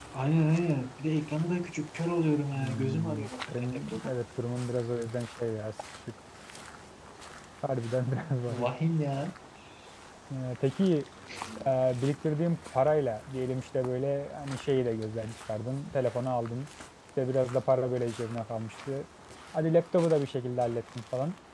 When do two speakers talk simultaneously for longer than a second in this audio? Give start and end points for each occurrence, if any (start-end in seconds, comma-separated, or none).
2.5-4.1